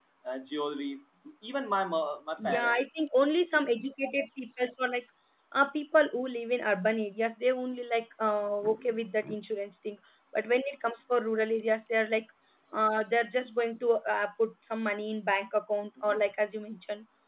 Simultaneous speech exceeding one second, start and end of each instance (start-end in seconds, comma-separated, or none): none